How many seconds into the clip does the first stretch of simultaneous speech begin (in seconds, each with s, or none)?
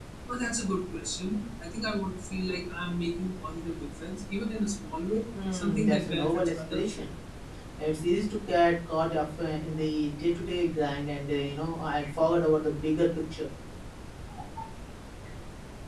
5.3 s